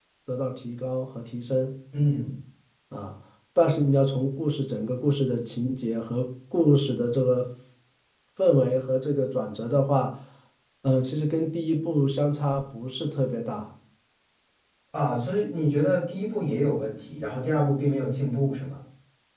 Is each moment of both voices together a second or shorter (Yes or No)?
Yes